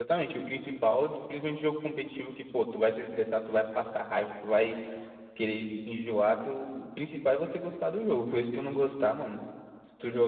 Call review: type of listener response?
listening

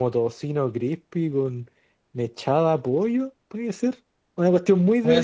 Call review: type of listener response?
listening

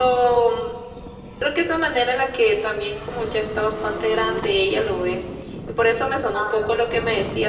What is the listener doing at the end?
listening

